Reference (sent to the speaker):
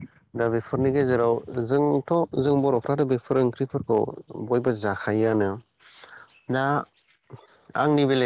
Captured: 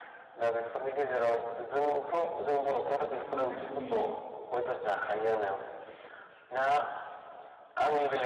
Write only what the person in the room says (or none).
सानसे बा साननै